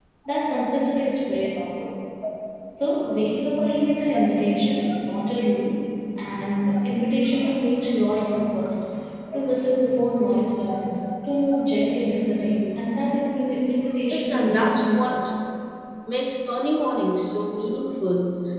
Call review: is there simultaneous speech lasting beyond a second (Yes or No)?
Yes